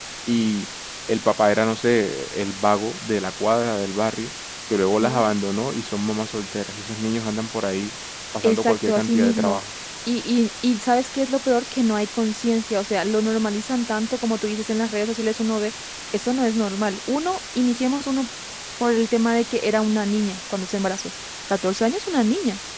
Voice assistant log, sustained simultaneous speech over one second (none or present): present